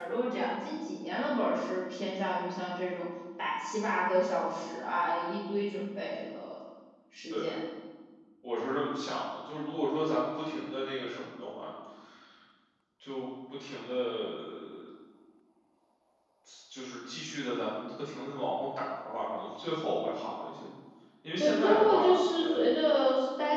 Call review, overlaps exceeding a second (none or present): present